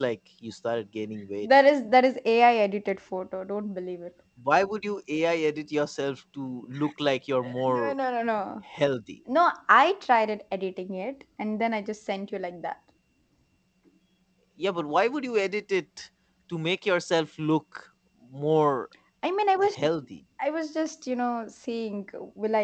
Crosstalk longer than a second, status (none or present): none